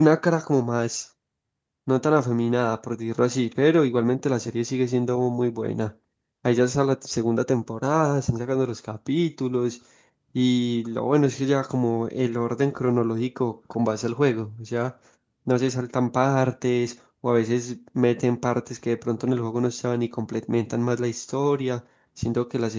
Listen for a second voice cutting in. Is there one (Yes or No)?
No